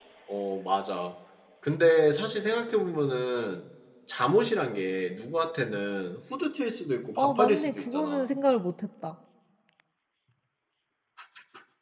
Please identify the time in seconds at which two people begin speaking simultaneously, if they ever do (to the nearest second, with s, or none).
7 s